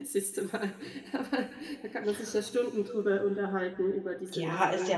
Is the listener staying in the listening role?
No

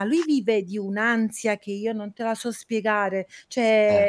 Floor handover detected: No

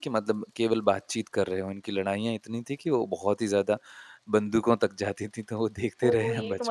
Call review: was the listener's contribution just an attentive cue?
No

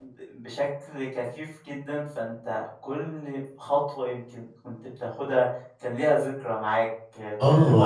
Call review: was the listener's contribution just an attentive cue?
No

